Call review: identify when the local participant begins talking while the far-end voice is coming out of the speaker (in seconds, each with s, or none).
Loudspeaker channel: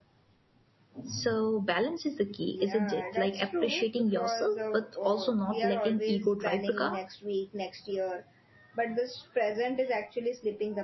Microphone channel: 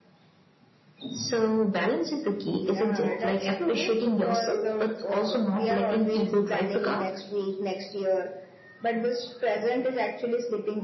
none